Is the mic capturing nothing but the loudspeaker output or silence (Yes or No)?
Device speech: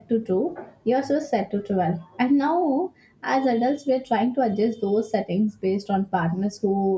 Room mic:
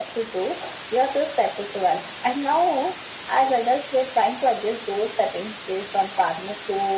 Yes